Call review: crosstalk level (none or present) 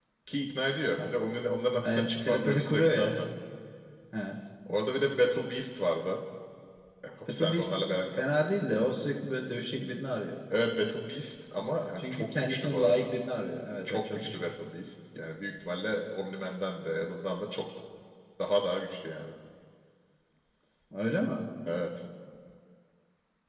present